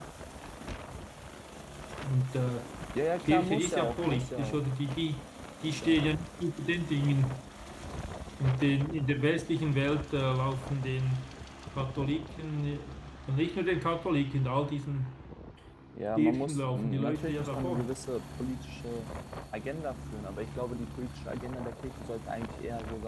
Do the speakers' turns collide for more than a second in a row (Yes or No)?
Yes